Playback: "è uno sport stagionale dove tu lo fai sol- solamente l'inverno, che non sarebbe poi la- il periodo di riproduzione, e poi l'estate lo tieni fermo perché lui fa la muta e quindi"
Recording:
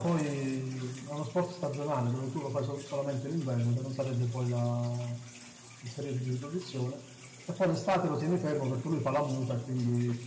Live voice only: none

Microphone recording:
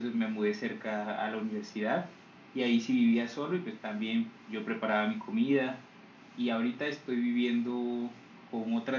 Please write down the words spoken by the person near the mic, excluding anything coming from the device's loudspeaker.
none

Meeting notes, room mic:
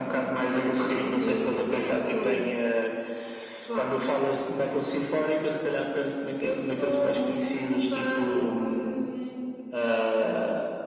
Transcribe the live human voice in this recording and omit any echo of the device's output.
sim, sinfónico metal e

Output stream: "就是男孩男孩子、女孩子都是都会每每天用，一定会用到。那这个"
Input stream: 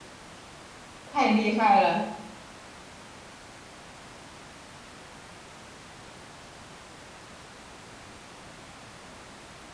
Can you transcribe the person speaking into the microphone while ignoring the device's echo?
太厉害了，

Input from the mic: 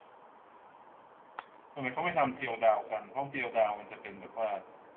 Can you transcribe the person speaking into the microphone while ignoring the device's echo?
ทำไมเขาไม่ทำเจียวดาวกันเพราะเจียวดาวมันจะเป็นแบบว่า

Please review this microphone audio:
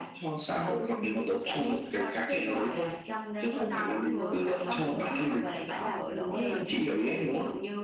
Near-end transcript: Chúa cho mọi thứ và mọi thứ đều phải phải là ừ, theo lời Thiên Chúa.

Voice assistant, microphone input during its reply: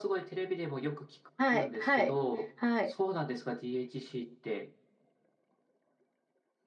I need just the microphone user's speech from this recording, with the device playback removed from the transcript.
はい、はい、はい、

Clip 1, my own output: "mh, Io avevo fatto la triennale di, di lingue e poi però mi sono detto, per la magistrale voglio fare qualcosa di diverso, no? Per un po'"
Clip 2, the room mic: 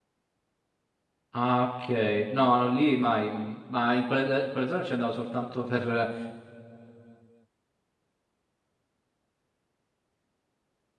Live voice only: Ah, ok. No, no, lì mai. mm, Ma in quella, in quella zona ci andavo soltanto per,

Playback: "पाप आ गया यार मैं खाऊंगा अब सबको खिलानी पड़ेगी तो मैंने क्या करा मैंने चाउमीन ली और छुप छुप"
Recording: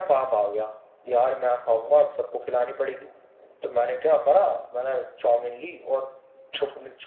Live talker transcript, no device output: none

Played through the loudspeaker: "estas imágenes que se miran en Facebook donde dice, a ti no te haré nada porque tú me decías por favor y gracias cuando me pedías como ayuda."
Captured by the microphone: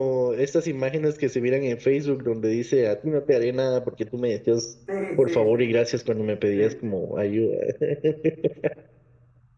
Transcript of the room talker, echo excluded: Sí, sí, sí, sí,

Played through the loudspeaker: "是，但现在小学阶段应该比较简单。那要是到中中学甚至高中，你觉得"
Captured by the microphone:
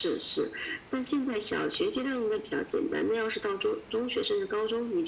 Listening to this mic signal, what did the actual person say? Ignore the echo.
none

